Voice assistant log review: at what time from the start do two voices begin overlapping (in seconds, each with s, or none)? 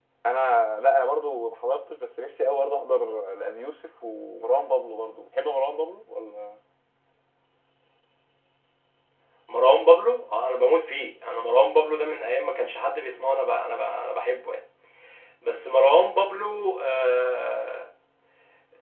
none